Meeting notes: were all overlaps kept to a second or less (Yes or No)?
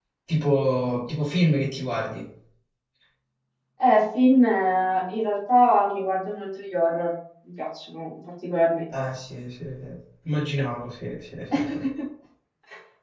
Yes